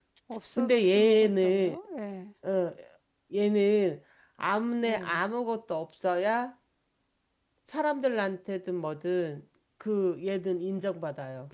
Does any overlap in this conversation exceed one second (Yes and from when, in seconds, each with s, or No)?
Yes, from 0.6 s